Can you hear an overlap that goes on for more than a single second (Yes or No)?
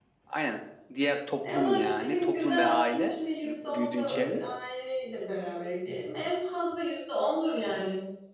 Yes